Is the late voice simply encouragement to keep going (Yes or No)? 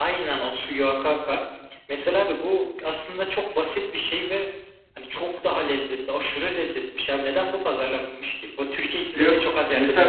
No